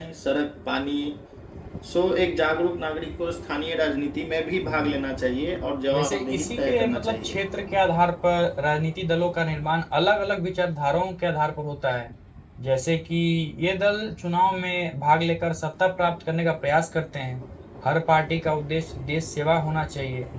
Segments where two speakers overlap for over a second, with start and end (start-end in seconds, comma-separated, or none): 5.9-7.4